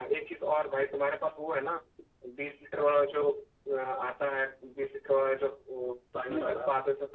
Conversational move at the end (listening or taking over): listening